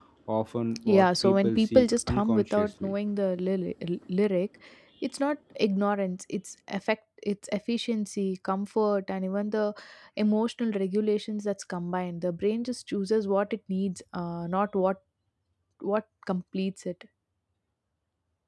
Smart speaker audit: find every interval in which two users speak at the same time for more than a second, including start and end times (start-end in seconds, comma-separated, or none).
0.9-2.9